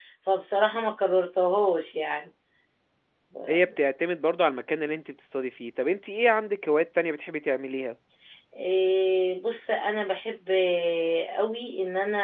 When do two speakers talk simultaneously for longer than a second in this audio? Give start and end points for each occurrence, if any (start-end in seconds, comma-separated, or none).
none